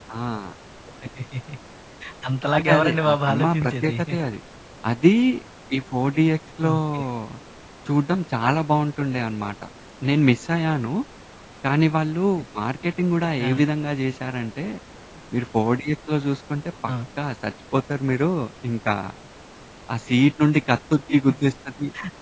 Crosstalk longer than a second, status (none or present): present